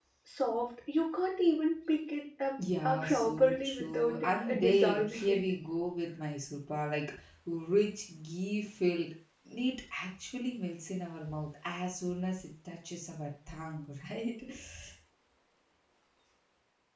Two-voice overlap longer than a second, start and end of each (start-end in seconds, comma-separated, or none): 2.8-5.4